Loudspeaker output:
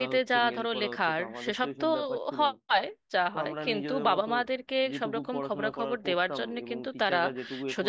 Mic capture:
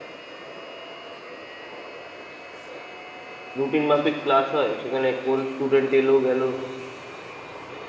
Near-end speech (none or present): present